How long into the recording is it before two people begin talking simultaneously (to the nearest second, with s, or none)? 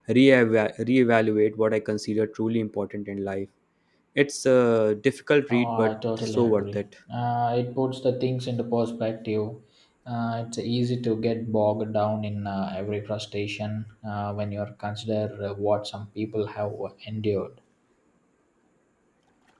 5 s